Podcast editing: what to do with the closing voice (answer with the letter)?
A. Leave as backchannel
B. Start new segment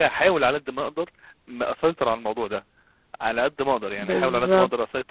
A